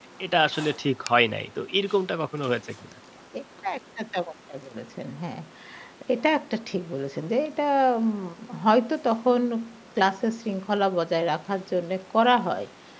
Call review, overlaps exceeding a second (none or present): none